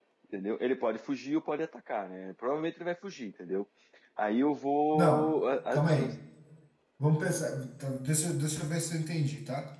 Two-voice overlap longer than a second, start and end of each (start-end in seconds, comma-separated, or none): none